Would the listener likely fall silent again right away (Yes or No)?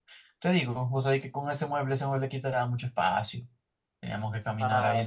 Yes